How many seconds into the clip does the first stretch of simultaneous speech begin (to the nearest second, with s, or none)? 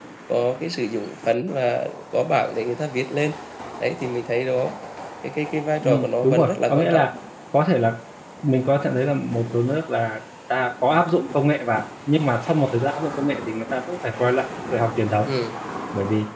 6 s